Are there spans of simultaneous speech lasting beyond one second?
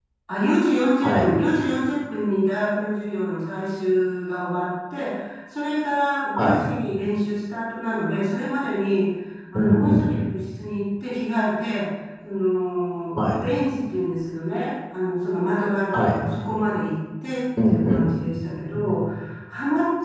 No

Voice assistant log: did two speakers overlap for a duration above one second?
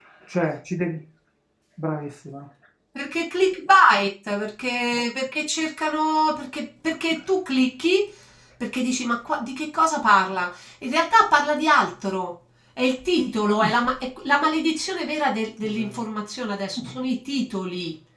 No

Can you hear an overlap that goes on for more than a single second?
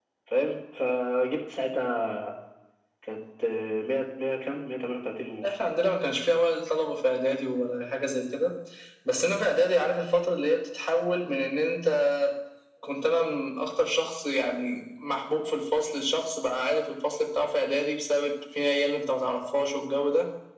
No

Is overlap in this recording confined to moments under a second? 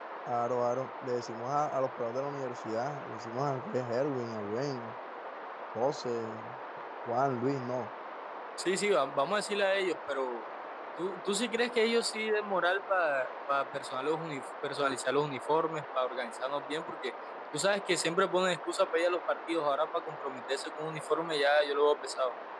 Yes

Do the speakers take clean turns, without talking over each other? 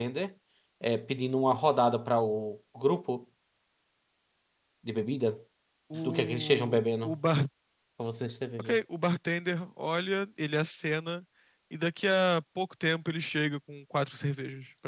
No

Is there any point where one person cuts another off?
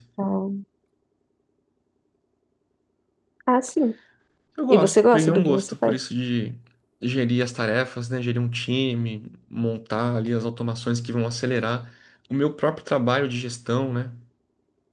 Yes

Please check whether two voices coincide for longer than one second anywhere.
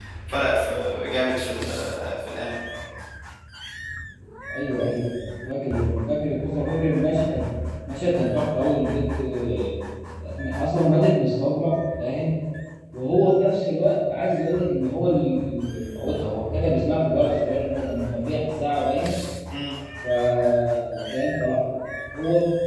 No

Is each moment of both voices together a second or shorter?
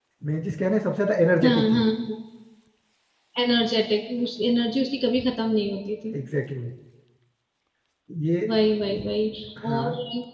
Yes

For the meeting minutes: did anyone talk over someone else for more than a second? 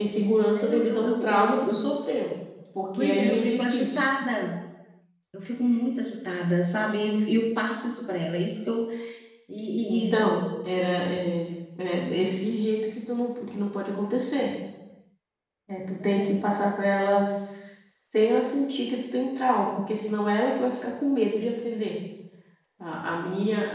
Yes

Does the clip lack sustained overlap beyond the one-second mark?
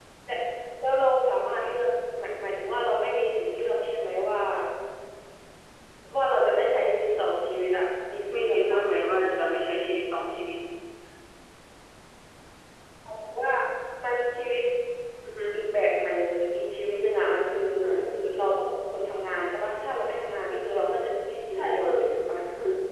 Yes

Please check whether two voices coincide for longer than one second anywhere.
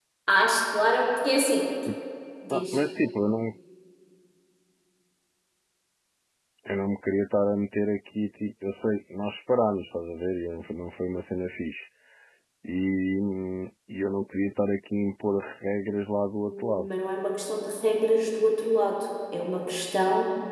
No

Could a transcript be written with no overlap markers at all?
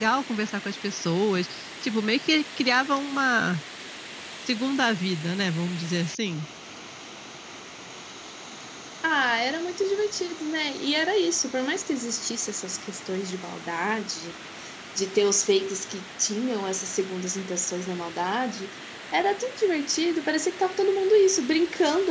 Yes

